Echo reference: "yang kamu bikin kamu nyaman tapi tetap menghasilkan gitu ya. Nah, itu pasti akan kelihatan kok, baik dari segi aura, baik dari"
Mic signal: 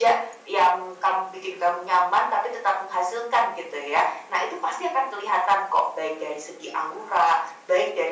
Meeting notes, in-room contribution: none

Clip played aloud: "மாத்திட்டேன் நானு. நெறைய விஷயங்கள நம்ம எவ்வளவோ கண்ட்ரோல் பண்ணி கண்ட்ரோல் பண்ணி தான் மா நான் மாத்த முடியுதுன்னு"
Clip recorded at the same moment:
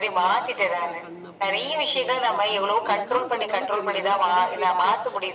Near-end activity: present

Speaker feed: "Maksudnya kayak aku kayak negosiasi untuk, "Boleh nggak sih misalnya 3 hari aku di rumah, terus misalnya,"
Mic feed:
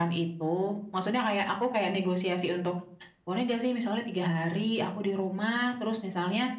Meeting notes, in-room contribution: none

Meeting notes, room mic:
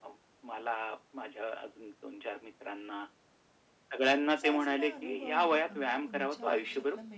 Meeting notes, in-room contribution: present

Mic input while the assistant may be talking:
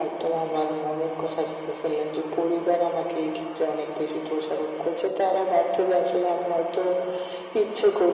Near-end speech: none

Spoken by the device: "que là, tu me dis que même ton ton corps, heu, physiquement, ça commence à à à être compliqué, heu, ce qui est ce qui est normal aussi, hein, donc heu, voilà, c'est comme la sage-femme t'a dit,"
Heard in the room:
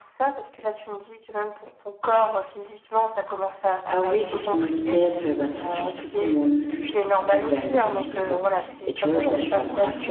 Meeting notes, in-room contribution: present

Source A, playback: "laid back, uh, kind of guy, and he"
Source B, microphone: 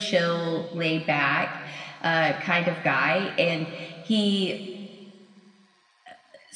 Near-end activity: none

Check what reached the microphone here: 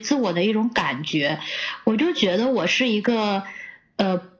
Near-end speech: none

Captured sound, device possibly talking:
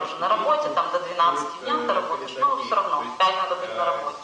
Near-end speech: present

